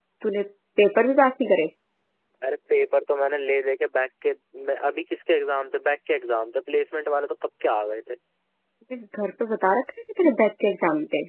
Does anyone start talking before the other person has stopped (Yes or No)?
No